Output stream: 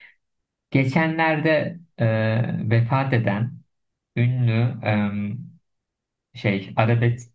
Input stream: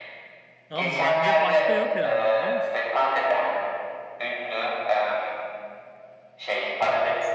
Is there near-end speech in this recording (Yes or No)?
Yes